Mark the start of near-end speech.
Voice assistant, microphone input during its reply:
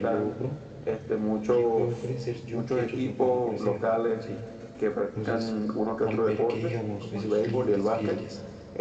none

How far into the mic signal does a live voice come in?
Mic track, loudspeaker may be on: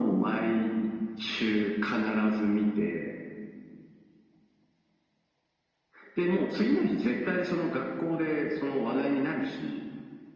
none

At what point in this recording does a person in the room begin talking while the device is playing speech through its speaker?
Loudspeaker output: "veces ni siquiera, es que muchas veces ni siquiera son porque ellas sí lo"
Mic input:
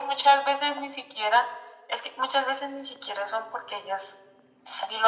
none

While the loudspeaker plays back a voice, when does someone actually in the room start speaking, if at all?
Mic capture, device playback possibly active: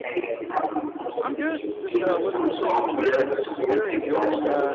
1 s

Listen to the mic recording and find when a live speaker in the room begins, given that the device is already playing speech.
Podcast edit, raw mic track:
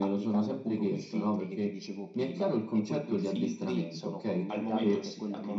4 s

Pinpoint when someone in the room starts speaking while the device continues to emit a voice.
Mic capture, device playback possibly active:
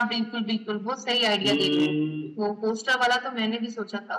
1 s

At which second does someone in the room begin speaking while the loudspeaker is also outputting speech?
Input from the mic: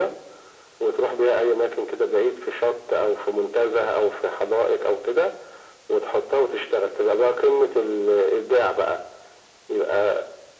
none

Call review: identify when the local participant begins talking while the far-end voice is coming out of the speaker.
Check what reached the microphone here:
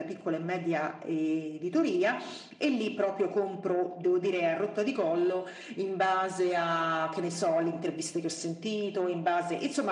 none

